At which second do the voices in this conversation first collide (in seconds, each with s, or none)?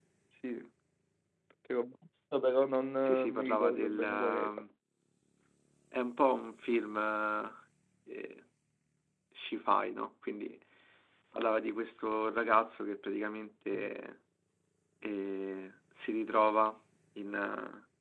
3.0 s